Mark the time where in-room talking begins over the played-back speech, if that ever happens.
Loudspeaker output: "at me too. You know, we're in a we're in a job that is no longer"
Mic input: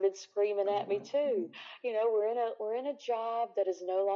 0.7 s

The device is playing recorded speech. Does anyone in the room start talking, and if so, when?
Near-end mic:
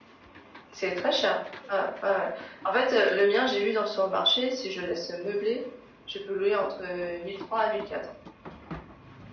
none

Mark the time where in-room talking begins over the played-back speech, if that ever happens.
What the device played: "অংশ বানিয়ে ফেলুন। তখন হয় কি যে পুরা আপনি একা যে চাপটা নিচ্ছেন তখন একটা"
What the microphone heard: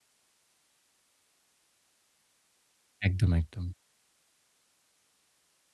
3.1 s

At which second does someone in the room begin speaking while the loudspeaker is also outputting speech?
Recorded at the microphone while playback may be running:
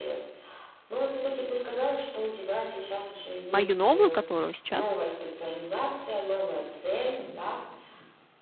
3.5 s

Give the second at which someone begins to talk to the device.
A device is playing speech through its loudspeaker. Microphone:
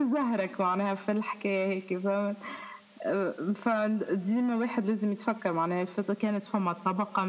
none

